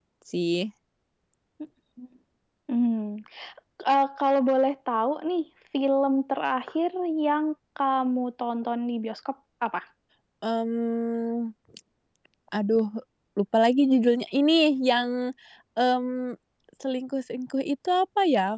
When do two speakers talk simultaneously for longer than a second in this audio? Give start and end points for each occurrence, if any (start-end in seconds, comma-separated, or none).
none